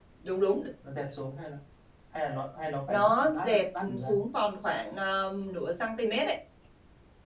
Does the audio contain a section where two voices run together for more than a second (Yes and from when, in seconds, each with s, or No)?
Yes, from 2.9 s